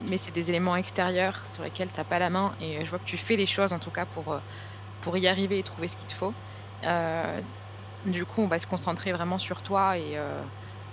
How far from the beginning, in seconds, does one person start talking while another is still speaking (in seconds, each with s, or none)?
none